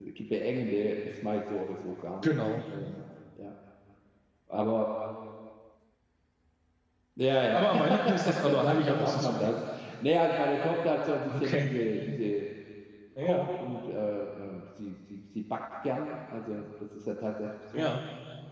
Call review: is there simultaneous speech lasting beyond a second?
Yes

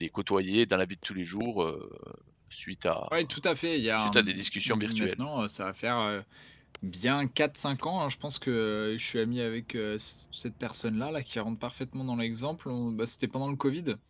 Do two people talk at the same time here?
Yes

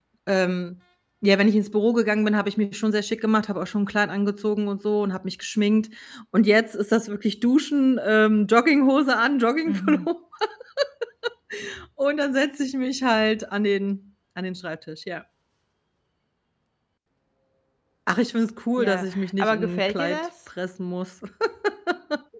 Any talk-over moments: Yes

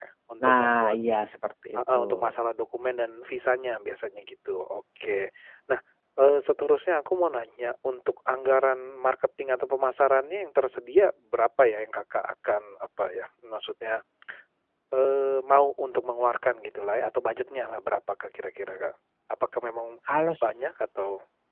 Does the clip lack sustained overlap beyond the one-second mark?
Yes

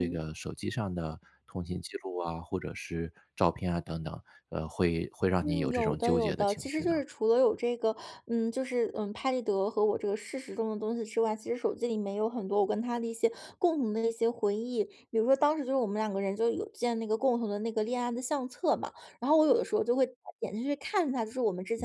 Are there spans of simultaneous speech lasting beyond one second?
Yes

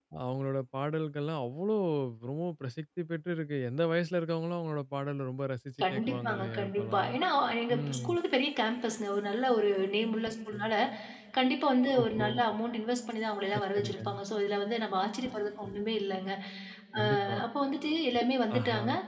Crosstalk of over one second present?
Yes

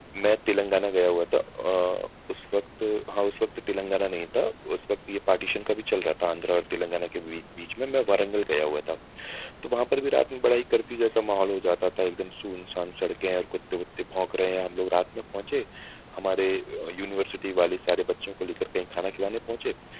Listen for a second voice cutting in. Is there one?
No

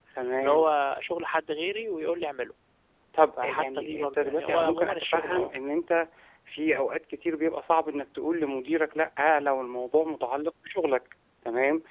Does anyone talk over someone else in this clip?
Yes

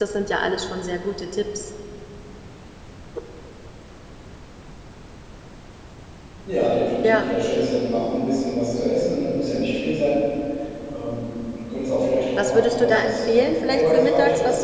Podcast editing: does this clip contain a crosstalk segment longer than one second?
Yes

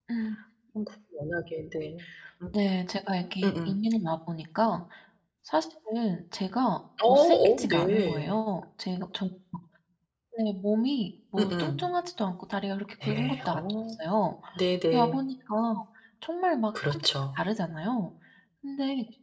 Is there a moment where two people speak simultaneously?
Yes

